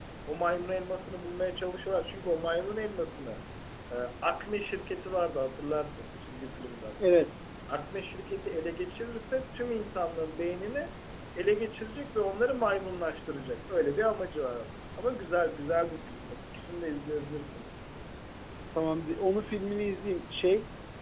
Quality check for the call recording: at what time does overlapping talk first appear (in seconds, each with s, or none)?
none